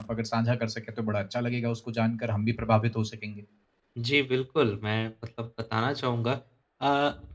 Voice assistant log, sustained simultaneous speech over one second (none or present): none